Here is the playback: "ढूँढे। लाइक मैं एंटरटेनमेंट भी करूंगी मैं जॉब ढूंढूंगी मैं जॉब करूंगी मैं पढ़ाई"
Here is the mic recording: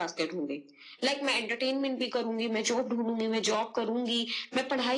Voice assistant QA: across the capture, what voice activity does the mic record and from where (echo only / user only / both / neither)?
echo only